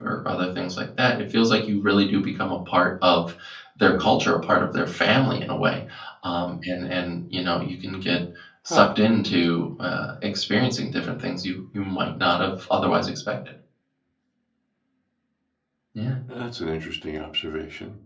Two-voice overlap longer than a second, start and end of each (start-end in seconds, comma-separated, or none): none